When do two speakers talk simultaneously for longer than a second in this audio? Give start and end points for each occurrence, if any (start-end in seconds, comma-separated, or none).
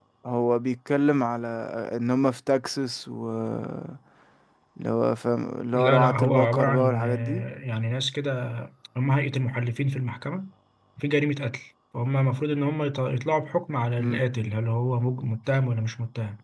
5.7-7.4